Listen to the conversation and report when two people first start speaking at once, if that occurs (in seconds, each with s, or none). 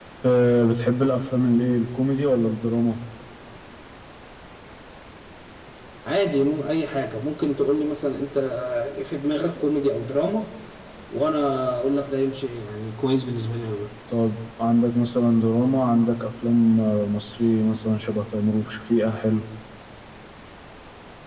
none